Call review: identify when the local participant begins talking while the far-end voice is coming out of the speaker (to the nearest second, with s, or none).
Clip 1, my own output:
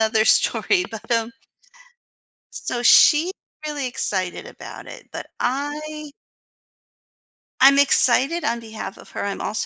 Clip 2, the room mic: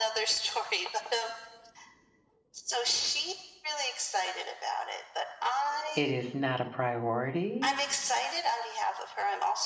6 s